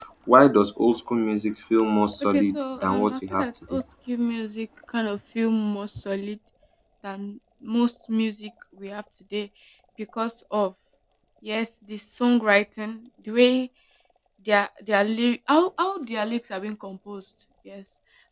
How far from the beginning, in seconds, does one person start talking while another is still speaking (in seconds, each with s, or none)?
2.3 s